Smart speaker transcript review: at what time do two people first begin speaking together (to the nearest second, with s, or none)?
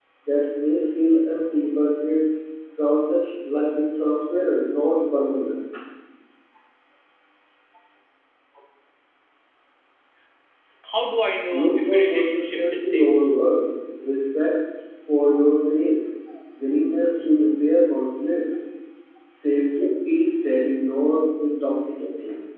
12 s